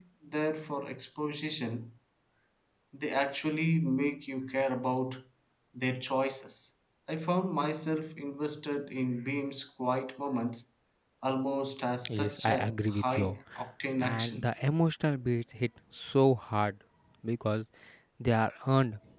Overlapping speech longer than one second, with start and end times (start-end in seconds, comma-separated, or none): 12.1-13.4